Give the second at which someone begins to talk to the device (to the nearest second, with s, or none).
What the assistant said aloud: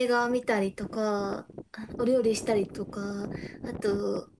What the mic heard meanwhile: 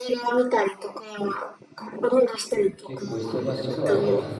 3 s